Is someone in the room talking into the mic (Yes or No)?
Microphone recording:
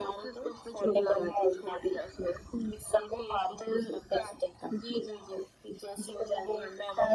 No